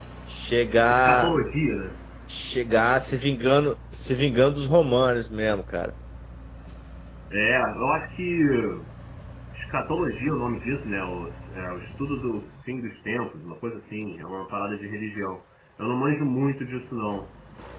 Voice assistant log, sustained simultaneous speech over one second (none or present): none